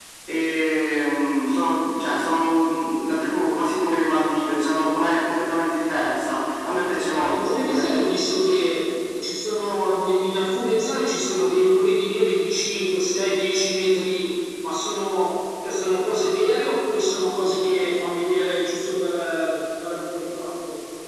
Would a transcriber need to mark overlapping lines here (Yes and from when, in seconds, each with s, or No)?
Yes, from 6.6 s